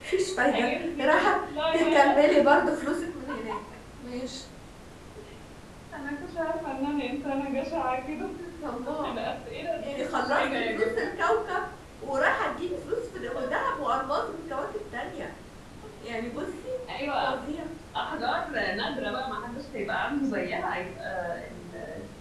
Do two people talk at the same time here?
Yes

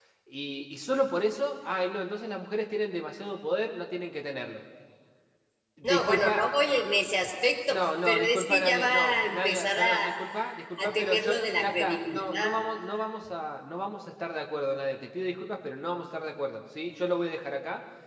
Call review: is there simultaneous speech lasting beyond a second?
Yes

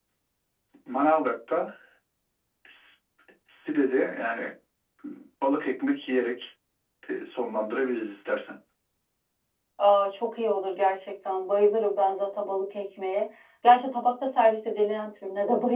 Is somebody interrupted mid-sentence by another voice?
No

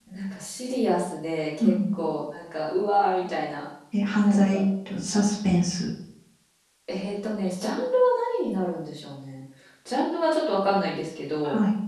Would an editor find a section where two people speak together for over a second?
No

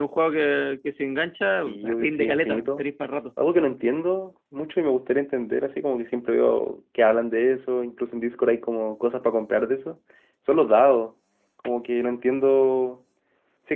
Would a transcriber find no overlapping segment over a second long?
No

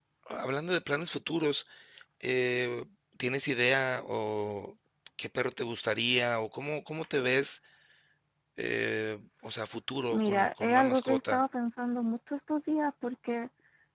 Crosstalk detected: Yes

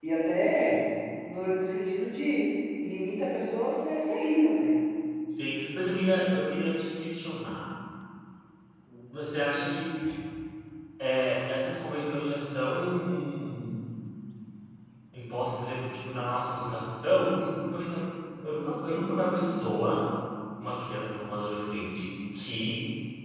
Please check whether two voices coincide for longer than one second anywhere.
No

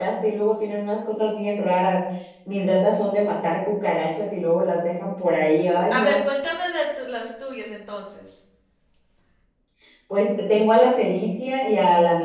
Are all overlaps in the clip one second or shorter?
Yes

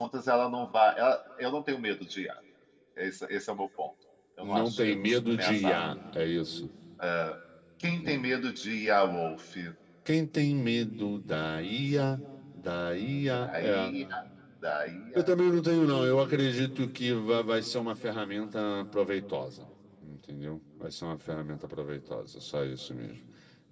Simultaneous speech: Yes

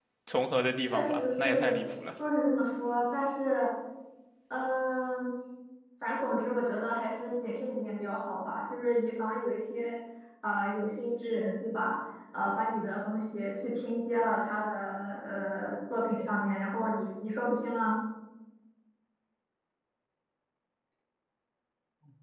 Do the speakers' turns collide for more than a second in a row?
Yes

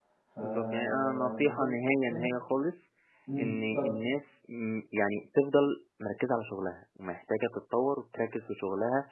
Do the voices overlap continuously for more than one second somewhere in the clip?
Yes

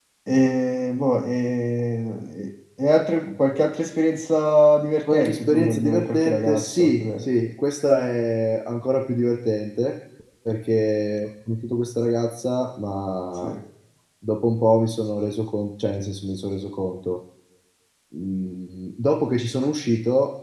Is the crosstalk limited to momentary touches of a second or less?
No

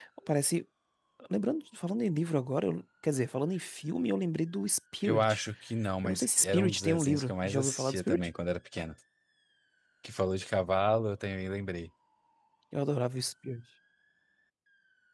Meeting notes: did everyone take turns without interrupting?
No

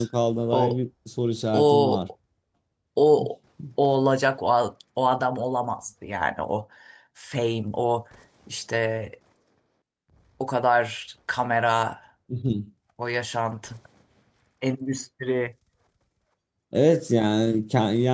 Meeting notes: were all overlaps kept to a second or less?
Yes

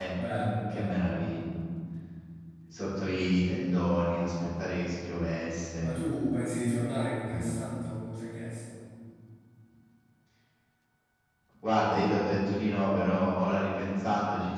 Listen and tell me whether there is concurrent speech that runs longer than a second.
No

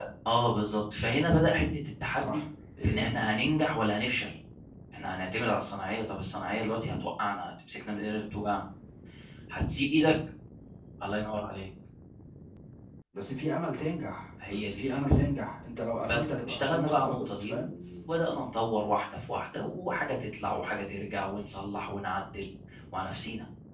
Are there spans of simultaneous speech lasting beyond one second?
Yes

